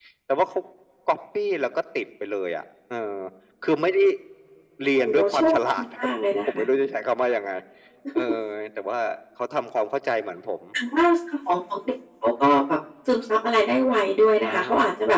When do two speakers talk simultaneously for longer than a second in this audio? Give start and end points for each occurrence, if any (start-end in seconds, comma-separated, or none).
4.9-6.6